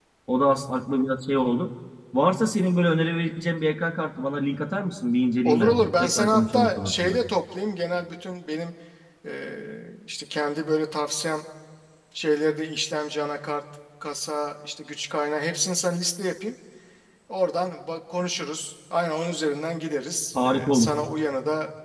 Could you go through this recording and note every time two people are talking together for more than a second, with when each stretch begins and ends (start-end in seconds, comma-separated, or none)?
5.4-7.2